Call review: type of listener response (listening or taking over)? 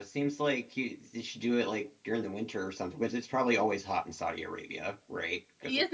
taking over